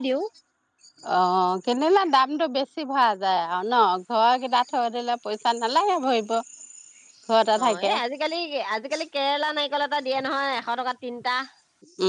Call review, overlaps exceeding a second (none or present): none